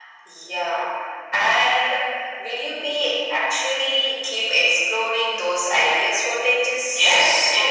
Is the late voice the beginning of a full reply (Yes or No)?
Yes